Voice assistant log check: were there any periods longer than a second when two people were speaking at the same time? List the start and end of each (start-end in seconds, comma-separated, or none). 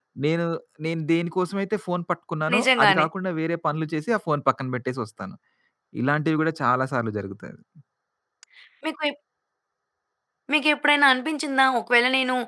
none